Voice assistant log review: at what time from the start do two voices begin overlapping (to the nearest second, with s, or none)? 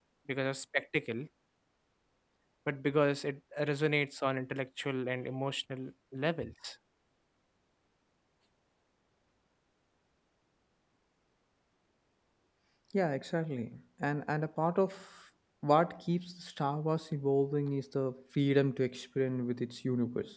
none